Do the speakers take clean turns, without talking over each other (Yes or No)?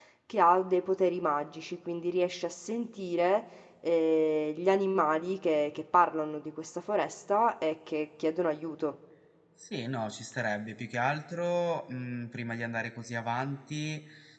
Yes